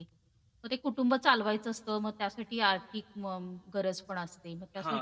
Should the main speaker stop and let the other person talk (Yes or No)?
Yes